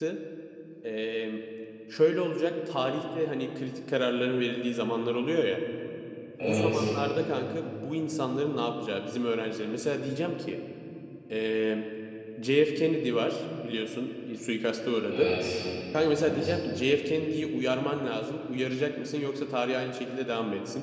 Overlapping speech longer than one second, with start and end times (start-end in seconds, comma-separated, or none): none